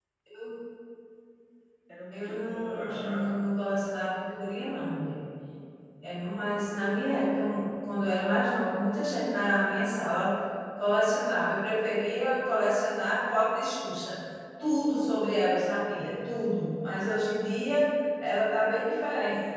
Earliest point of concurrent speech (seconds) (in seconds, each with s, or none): 2.1 s